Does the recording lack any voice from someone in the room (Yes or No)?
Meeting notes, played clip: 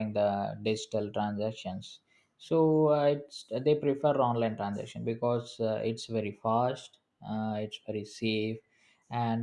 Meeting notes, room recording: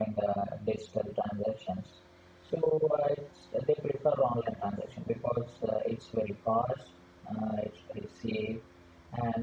Yes